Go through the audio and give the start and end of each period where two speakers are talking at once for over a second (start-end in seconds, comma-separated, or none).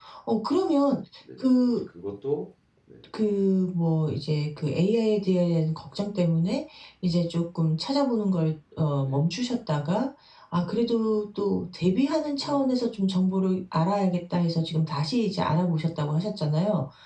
none